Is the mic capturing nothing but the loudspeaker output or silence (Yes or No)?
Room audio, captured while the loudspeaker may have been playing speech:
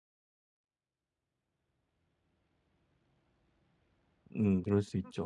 No